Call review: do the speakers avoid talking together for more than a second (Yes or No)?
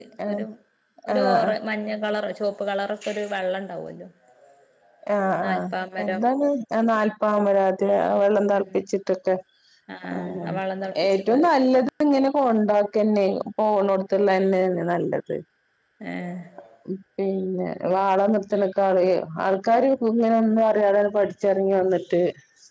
Yes